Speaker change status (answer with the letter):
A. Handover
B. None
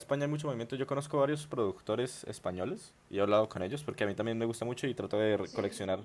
B